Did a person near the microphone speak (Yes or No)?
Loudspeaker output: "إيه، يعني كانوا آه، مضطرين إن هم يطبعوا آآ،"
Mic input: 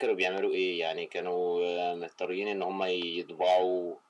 No